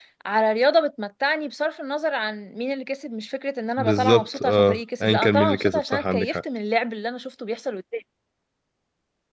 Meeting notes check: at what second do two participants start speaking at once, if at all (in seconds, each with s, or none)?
3.8 s